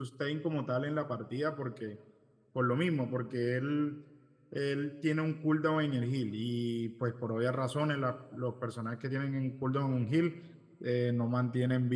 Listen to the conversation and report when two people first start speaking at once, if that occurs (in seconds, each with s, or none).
none